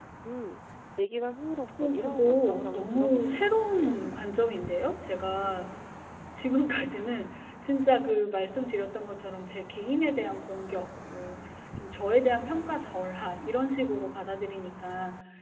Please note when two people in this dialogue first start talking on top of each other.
1.8 s

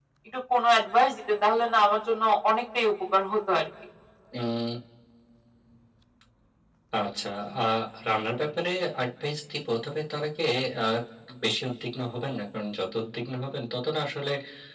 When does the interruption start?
none

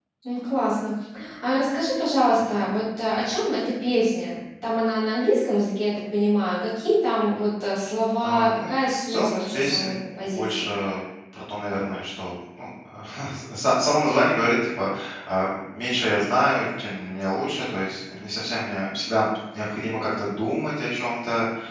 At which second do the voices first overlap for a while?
8.2 s

